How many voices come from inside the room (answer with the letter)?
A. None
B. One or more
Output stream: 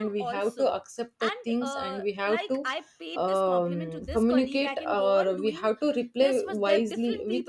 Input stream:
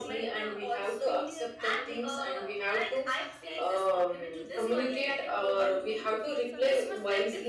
B